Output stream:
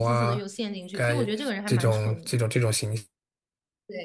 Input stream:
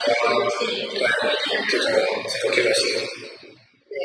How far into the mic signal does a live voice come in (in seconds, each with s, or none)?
none